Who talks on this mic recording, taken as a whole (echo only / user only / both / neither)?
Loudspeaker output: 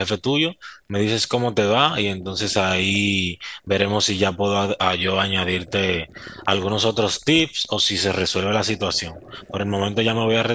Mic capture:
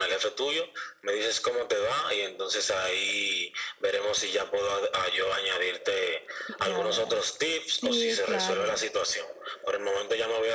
both